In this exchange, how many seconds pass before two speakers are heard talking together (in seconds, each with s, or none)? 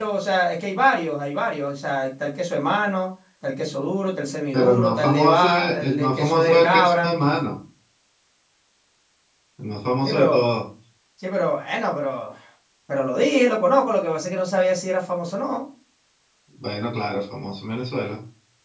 4.5 s